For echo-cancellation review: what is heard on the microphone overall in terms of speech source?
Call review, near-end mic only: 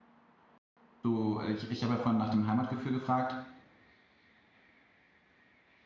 user only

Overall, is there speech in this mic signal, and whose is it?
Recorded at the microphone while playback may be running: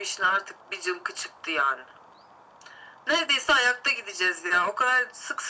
echo only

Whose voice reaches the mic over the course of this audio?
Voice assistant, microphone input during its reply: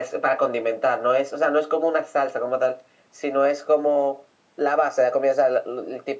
echo only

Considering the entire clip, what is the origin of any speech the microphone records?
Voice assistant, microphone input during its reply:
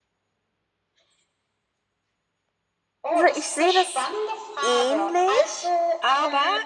both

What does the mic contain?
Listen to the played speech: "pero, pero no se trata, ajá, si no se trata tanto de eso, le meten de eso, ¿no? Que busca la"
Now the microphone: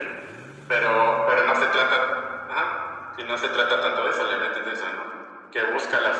echo only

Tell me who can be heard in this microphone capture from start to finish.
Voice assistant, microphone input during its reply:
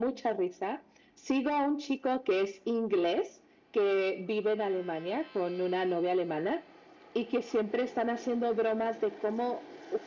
echo only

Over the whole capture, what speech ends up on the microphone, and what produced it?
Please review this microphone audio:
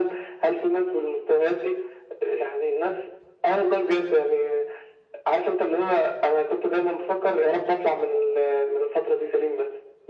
echo only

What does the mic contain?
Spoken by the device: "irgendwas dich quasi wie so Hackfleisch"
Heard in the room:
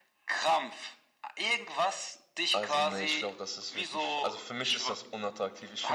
both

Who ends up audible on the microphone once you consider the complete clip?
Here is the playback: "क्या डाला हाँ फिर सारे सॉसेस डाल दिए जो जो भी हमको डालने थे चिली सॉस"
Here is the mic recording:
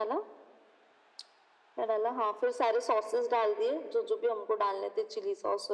echo only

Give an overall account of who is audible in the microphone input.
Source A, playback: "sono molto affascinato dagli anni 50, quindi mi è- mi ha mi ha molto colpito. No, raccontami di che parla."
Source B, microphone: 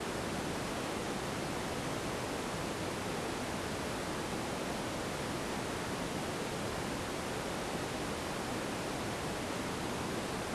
neither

